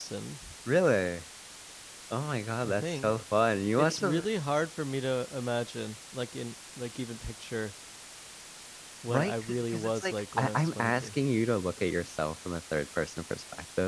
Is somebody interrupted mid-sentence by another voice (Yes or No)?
Yes